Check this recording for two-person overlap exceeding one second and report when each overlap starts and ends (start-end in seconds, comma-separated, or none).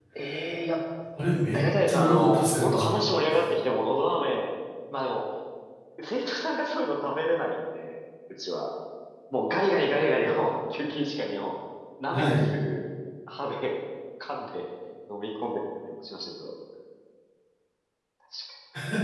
1.5-3.0